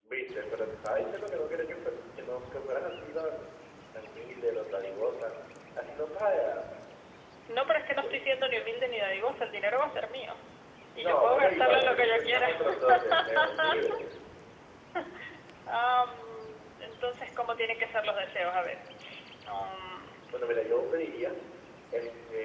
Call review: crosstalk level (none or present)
present